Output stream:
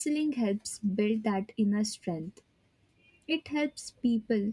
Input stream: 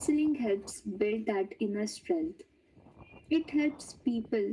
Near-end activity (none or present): none